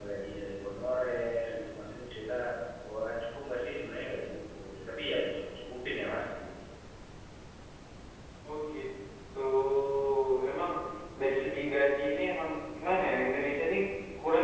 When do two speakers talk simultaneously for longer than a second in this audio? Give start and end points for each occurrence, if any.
none

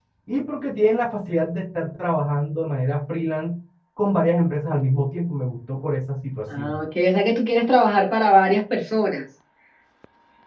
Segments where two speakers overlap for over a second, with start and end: none

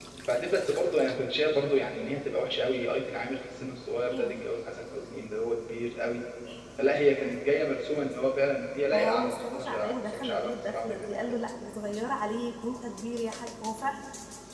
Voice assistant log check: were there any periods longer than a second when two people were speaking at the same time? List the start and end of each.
8.9-11.4

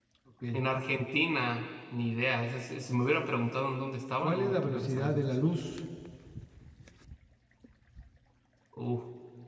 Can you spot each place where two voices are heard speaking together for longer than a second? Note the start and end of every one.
4.2-5.5

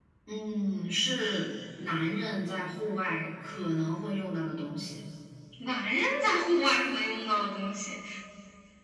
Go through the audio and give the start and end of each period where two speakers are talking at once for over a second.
none

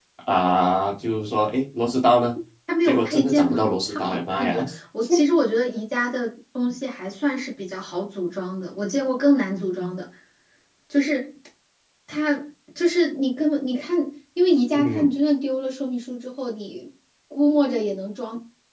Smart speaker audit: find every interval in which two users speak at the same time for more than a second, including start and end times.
2.9-4.6

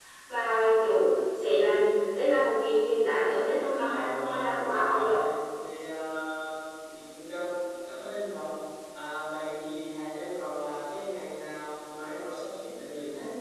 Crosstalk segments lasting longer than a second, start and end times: 3.8-5.1

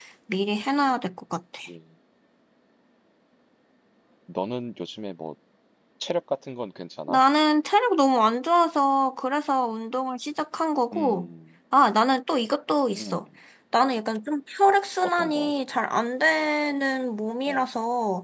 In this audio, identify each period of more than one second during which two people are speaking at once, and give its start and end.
none

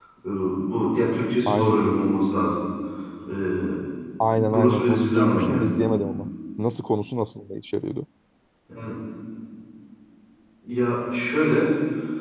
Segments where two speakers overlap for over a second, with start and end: 4.3-5.7

